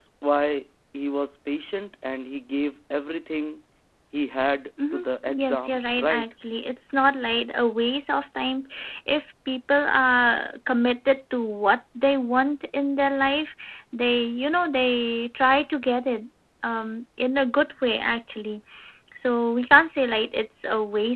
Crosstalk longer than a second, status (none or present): present